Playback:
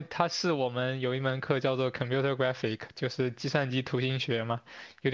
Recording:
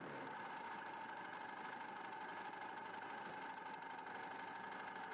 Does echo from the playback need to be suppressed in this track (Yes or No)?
No